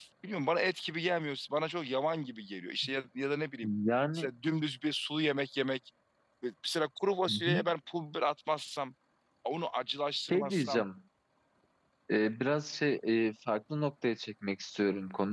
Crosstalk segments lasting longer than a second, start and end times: none

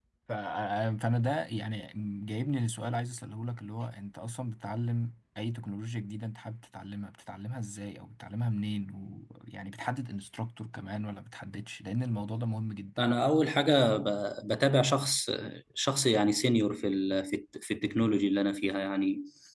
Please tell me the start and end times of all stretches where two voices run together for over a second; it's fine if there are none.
none

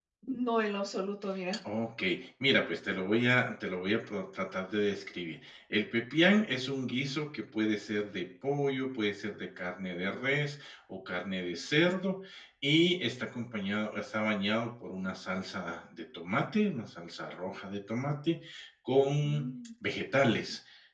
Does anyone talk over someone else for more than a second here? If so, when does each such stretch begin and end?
none

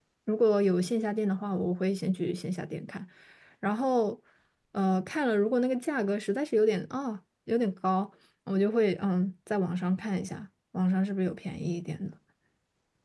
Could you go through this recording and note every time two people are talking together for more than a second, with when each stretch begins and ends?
none

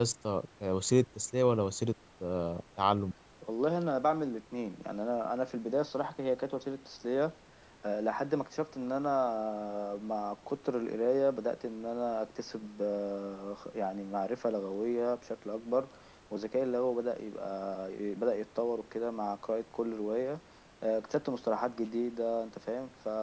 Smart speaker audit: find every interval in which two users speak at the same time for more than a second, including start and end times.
none

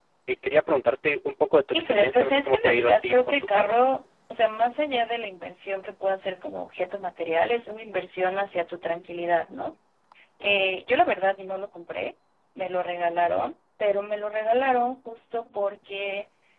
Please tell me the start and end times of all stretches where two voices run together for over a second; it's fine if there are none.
1.7-3.8

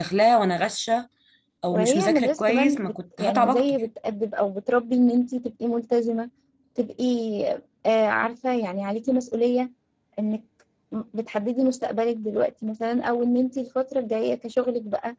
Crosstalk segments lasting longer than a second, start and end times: 1.7-3.8

